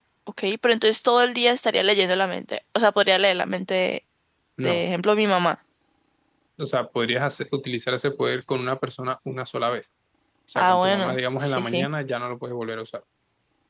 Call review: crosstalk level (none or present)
present